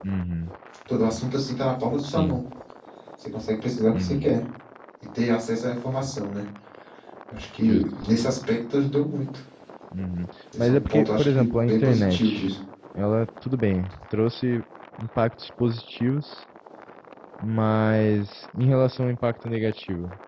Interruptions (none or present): present